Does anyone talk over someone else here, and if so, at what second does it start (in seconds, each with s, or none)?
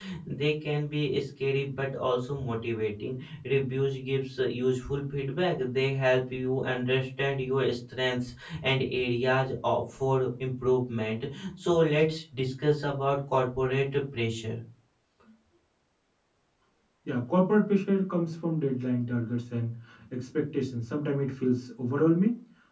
none